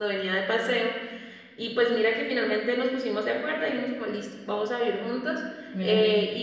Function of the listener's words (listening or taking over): listening